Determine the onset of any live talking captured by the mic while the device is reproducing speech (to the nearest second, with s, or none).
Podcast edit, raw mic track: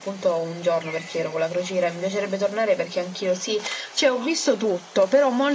none